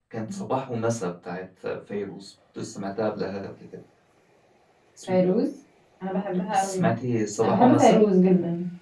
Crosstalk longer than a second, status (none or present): none